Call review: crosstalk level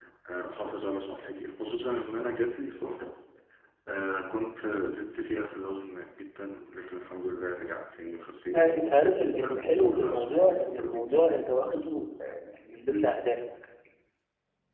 present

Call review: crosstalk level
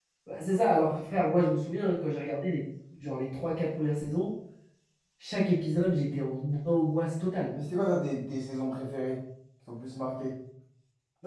none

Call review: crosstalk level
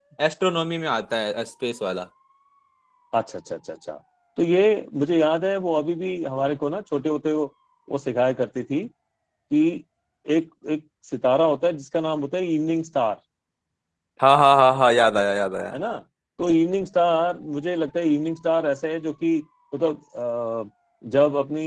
none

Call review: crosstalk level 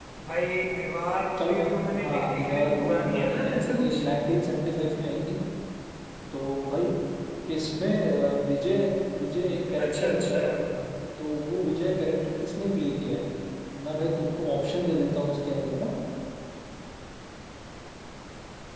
present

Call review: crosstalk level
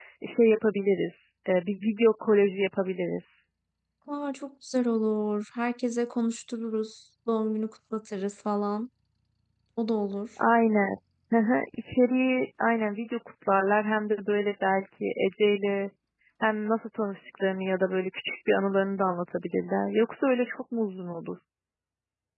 none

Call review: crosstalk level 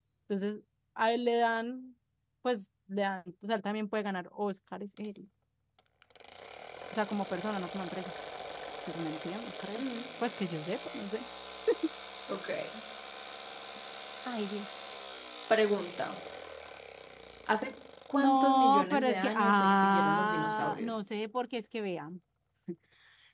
present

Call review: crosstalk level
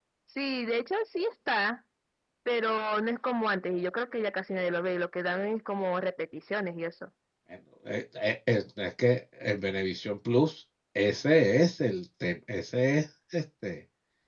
none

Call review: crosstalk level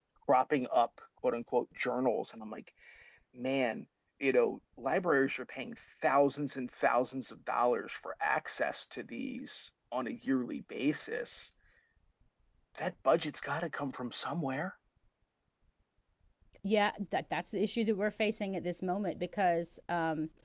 none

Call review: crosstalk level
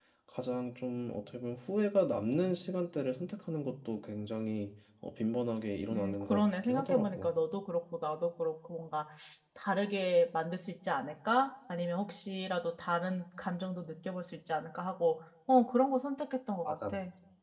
present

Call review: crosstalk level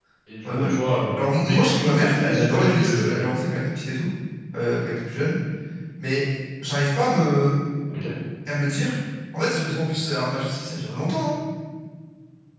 present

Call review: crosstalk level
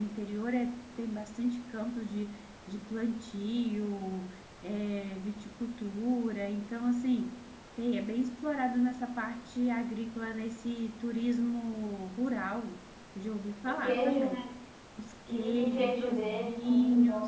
present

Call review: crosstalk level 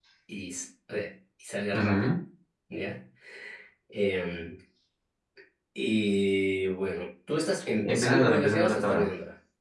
present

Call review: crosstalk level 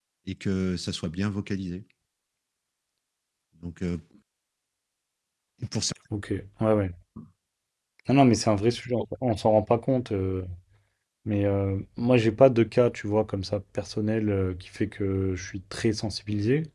none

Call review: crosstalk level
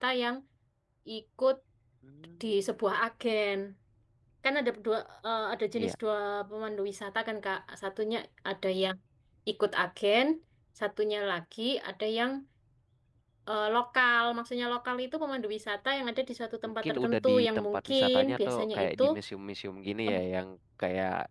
present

